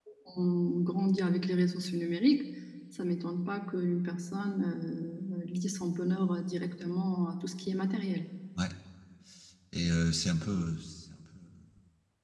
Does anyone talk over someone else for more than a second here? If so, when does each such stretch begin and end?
none

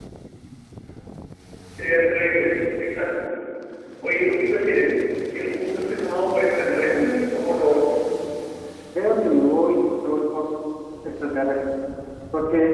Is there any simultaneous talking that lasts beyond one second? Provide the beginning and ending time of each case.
none

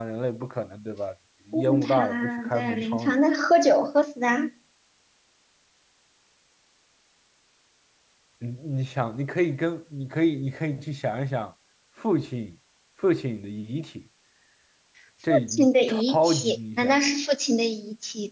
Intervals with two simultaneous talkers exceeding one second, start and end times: 1.7-3.2, 15.5-17.0

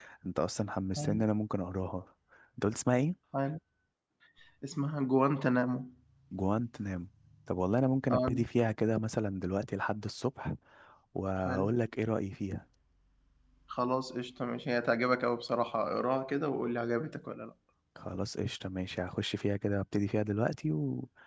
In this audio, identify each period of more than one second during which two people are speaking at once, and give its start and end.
none

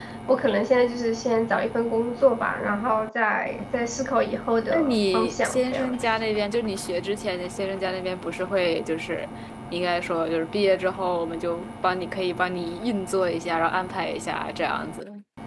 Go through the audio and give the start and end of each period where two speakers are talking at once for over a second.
4.7-6.0

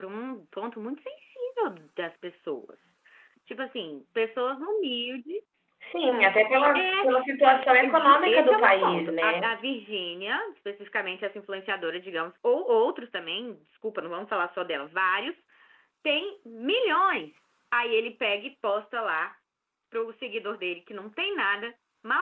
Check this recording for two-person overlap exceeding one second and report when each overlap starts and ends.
7.8-9.4

